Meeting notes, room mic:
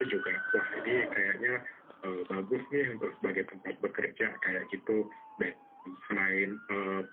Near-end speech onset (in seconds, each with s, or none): none